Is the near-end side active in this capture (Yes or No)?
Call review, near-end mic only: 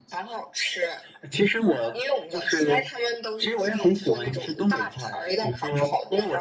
No